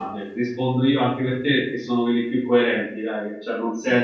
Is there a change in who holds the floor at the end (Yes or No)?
No